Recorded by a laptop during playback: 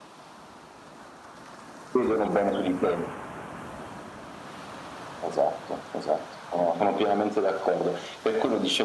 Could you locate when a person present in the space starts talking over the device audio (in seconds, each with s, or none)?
none